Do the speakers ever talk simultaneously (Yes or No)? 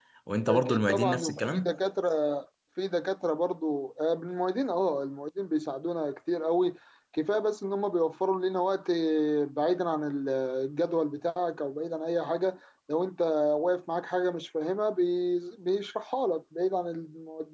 Yes